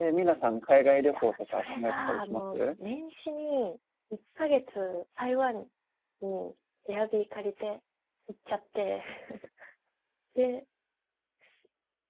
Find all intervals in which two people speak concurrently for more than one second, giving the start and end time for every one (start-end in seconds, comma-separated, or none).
1.1-2.7